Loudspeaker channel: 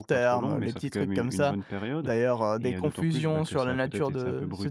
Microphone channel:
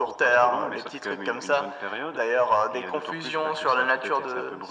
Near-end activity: none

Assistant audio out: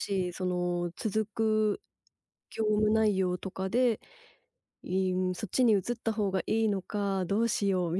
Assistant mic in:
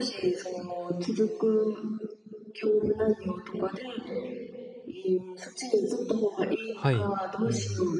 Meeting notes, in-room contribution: present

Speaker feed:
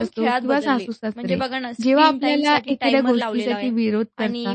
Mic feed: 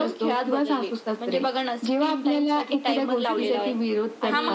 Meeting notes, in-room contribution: present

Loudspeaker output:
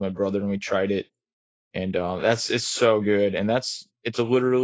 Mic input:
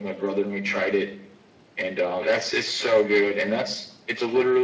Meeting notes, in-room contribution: none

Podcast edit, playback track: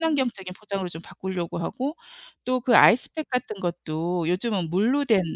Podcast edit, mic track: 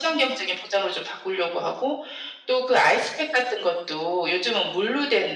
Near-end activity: none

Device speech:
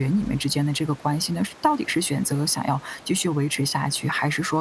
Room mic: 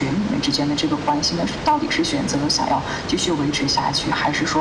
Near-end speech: none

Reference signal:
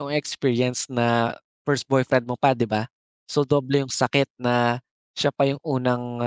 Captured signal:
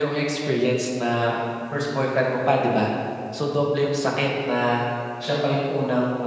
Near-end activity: none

